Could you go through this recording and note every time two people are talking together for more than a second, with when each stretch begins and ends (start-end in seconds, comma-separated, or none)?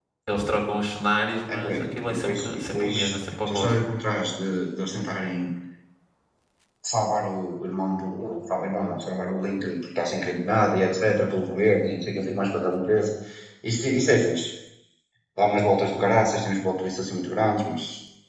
1.5-2.9